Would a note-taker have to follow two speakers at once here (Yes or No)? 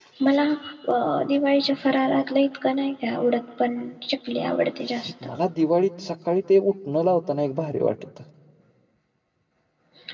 No